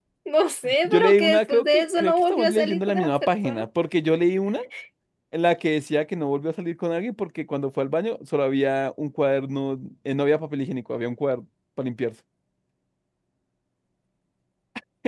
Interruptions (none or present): present